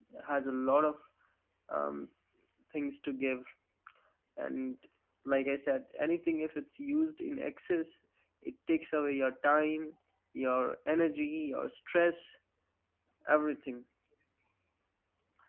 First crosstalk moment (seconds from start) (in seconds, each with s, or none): none